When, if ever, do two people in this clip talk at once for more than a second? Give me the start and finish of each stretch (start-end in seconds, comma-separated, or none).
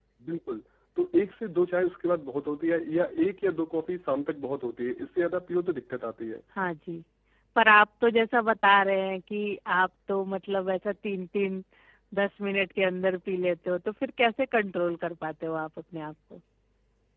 none